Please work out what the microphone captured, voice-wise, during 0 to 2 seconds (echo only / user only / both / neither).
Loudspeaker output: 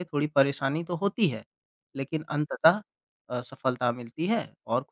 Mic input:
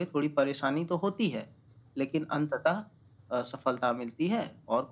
echo only